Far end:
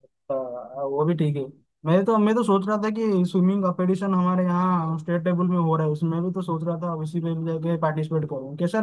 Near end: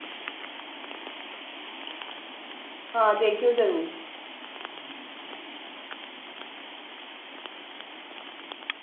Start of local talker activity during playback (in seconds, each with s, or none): 3.0 s